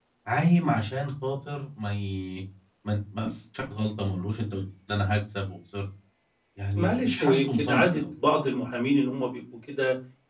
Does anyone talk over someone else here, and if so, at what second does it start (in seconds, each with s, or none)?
6.8 s